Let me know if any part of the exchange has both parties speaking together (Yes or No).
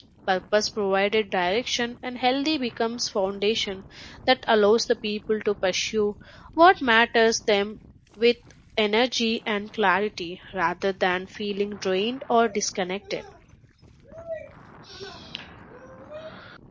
No